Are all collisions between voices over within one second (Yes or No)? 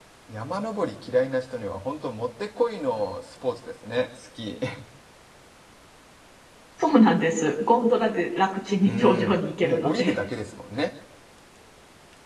No